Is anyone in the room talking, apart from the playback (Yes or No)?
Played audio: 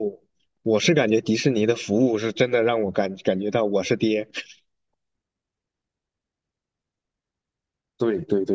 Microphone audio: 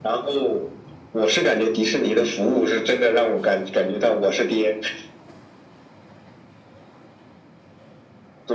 No